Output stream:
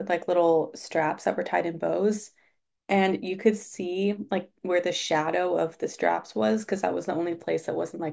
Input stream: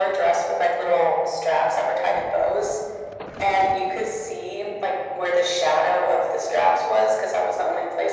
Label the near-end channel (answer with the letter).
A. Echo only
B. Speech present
A